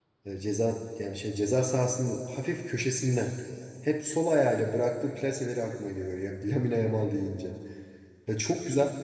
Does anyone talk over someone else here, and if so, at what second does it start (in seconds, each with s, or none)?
none